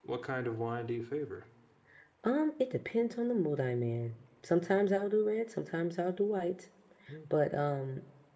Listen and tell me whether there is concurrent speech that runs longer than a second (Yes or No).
No